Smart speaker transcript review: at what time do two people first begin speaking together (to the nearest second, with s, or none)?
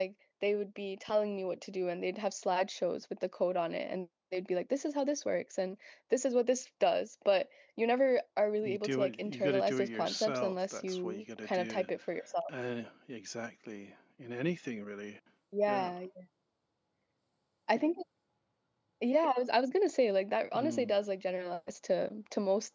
9 s